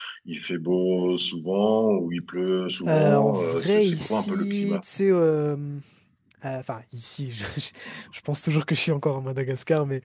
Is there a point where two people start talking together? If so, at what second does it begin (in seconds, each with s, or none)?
2.9 s